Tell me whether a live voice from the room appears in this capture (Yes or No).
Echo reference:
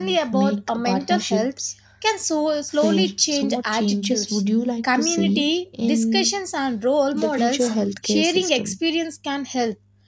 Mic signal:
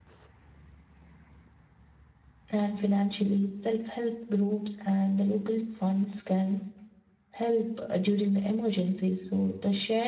Yes